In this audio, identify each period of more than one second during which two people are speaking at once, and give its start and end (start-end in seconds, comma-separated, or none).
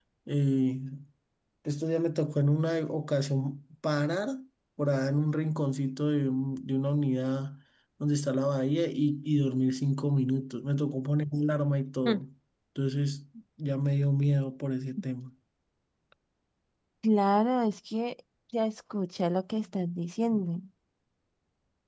none